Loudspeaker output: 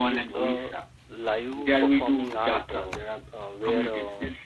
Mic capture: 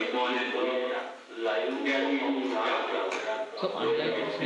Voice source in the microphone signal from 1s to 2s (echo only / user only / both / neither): echo only